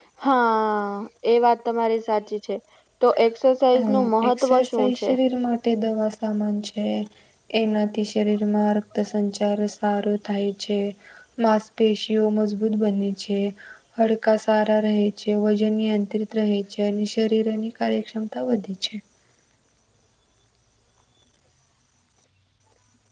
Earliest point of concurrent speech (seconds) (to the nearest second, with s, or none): 4 s